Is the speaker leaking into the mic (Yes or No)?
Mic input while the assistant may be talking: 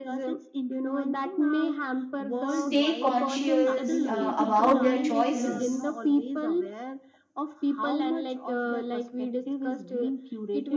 Yes